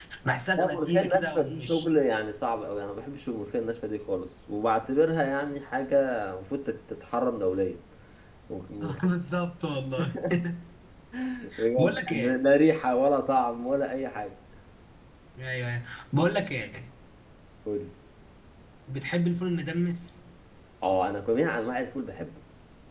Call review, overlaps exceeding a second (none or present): present